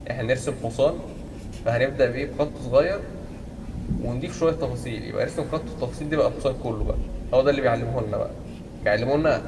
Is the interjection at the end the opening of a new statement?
No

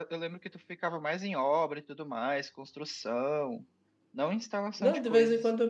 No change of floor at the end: No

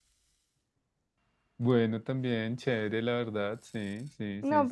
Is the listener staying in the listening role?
No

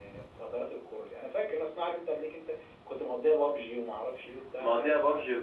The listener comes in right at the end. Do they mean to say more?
Yes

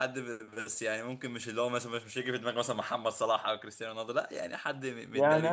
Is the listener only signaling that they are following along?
No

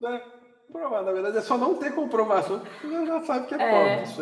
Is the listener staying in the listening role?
No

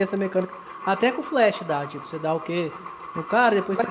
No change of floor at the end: Yes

